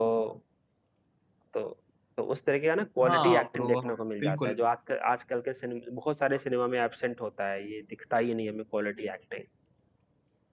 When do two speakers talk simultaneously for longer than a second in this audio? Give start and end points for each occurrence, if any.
3.0-4.5

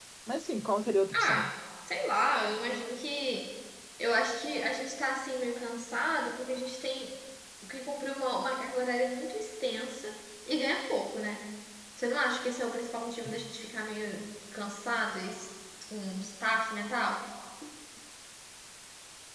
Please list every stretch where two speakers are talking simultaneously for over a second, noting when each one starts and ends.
none

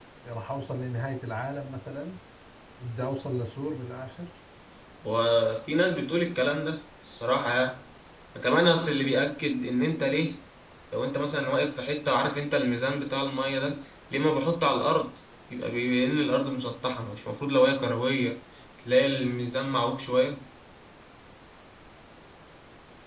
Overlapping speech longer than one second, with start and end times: none

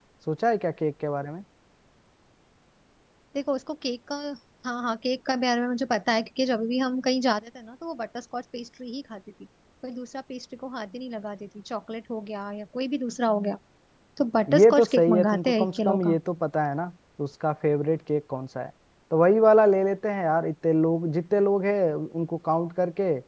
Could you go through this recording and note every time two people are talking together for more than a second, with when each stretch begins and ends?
14.6-16.2

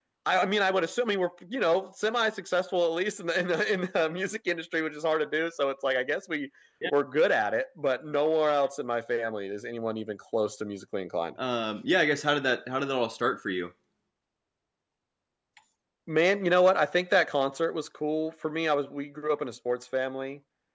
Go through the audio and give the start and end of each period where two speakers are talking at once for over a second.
none

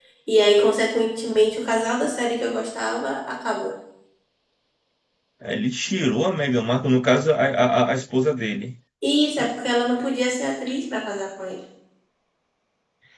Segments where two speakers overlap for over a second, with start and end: none

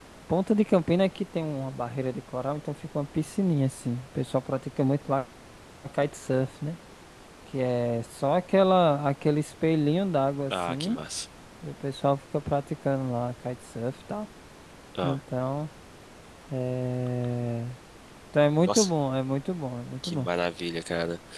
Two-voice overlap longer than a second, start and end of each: none

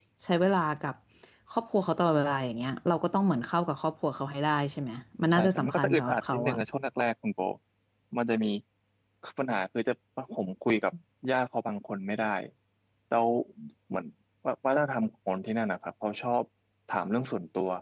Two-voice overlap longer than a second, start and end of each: 5.3-6.6

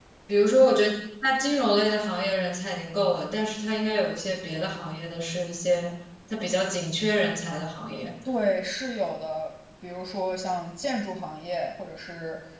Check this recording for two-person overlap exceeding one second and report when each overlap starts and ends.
none

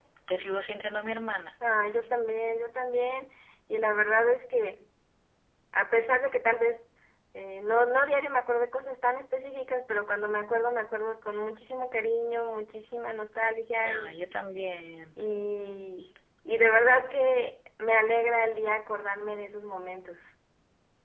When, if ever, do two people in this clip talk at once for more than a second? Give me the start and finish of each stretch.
none

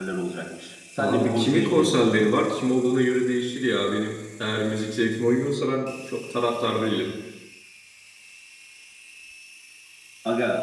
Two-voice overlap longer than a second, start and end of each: 1.0-2.3

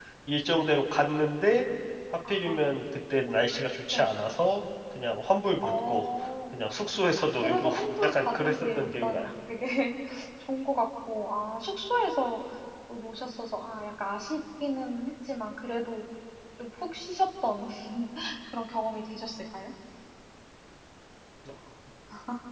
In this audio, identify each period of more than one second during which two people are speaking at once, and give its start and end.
7.4-9.2

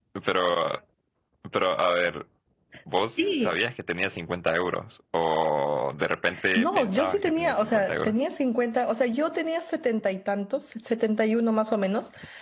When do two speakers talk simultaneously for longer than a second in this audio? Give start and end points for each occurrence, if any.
6.6-8.2

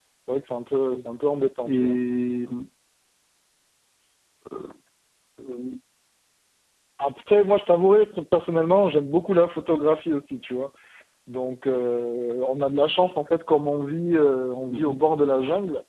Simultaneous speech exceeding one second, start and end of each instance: none

